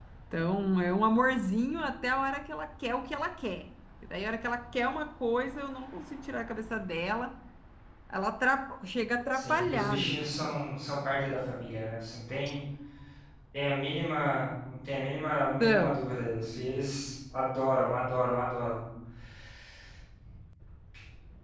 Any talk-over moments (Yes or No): Yes